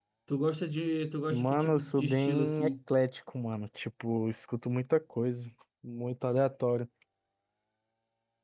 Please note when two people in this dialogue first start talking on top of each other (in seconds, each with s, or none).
1.3 s